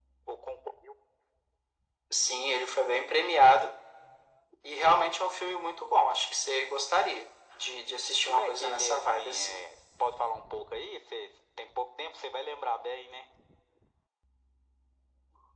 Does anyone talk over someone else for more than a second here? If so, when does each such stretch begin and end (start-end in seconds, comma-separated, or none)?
8.3-9.6